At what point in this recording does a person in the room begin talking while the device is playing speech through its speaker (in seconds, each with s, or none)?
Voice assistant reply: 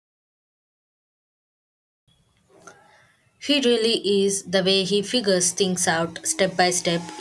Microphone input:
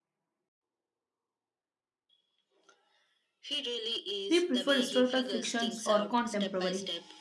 4.3 s